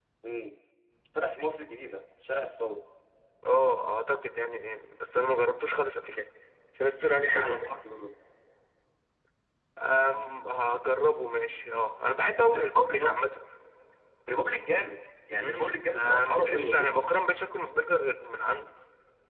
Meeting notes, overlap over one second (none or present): present